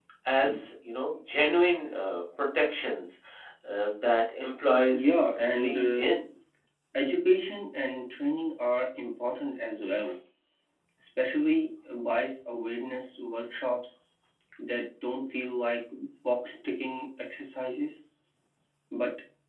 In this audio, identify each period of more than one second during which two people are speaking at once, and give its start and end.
4.9-6.1

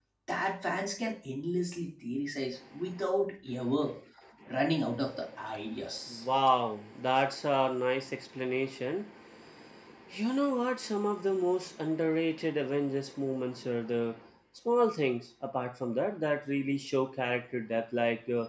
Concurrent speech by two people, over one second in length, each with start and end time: none

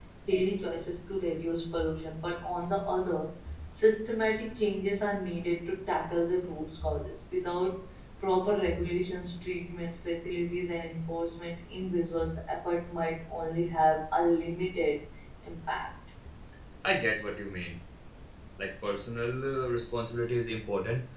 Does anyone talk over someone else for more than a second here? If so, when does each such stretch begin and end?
none

